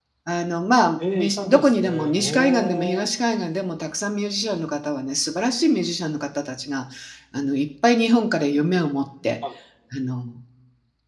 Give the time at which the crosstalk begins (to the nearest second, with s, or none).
1 s